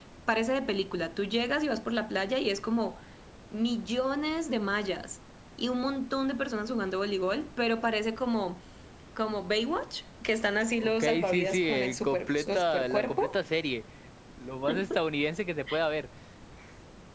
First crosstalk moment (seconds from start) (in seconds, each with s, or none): 10.8 s